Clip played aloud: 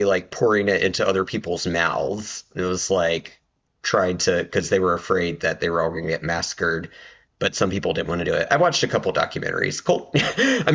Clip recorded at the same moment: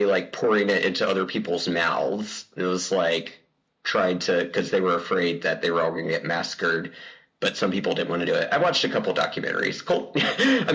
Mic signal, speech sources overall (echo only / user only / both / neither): echo only